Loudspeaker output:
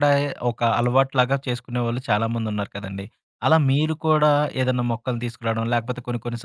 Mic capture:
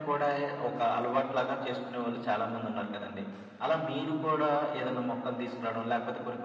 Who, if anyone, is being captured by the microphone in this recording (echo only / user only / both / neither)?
echo only